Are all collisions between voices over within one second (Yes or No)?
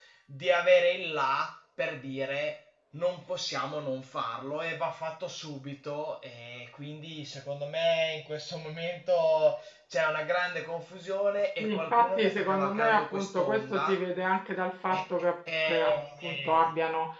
No